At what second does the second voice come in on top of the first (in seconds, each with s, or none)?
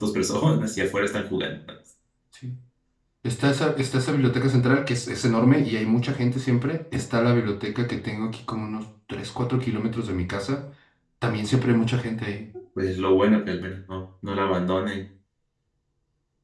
none